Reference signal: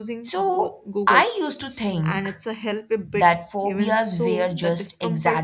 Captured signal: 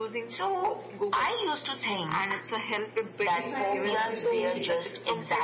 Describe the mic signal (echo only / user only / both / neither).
both